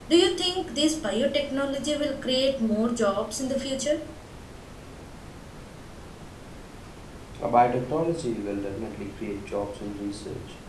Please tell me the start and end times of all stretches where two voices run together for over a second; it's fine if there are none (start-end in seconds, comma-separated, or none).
none